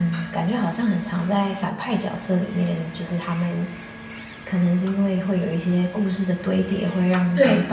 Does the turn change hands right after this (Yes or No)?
No